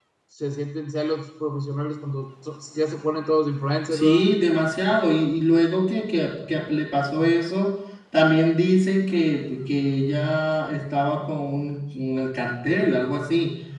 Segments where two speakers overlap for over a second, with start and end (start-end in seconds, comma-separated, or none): none